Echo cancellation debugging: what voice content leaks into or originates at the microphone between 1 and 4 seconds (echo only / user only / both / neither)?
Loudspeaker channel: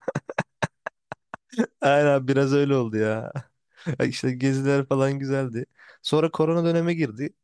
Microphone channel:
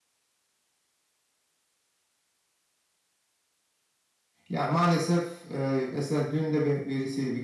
neither